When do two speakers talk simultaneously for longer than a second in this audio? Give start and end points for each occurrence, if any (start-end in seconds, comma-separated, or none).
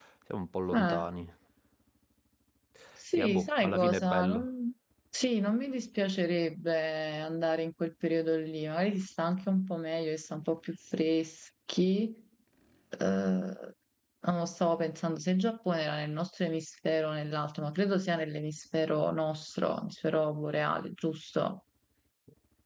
3.2-4.5